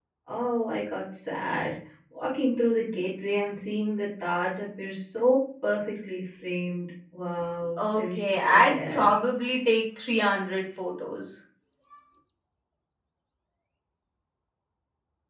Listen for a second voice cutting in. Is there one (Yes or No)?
Yes